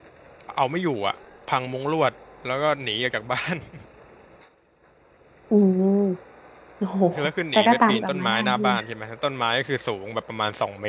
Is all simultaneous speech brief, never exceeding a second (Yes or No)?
No